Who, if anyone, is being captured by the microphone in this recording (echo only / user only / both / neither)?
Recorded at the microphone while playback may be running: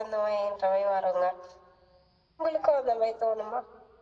echo only